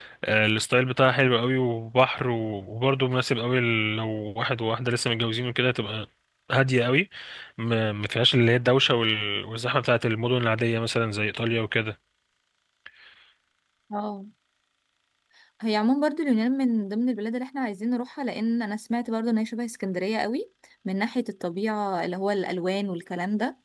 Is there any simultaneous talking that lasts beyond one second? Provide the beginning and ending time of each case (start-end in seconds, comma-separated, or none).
none